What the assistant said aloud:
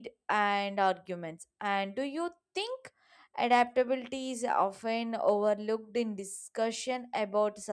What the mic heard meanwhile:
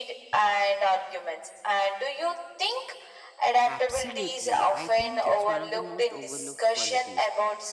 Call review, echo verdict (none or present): present